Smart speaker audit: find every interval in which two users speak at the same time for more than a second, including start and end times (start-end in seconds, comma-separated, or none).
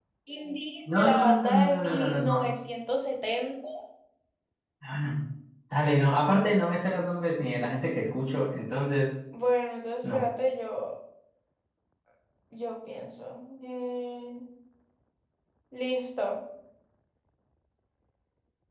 1.0-2.5